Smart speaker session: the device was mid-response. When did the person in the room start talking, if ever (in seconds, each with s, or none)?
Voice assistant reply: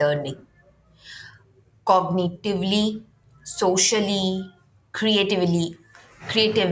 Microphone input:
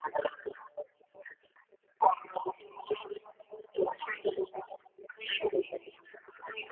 none